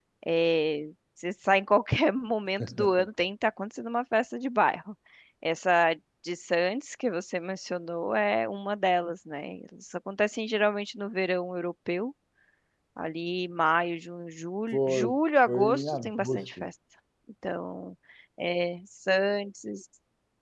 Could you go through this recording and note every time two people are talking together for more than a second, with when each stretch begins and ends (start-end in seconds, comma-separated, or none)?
15.5-16.7